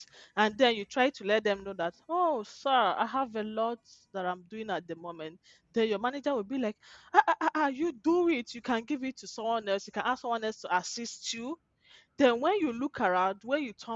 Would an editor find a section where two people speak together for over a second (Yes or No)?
No